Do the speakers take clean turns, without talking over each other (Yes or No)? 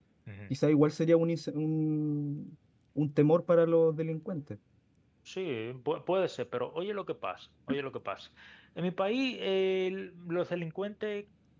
Yes